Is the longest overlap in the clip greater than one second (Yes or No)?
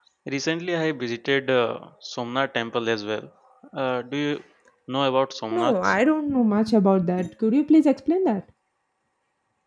No